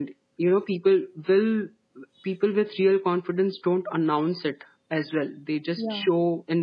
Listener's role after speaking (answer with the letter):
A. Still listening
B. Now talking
A